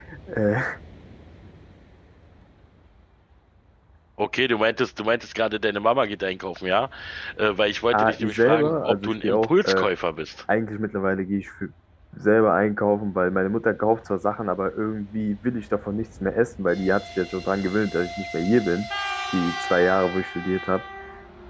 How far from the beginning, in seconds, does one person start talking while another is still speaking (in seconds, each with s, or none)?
7.9 s